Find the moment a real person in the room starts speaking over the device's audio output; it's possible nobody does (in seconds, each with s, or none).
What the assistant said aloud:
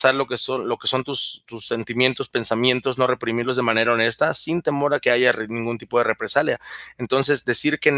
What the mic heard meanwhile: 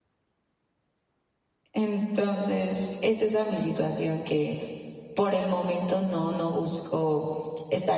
1.7 s